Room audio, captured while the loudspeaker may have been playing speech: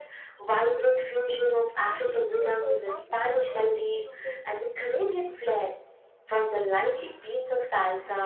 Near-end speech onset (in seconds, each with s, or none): 1.9 s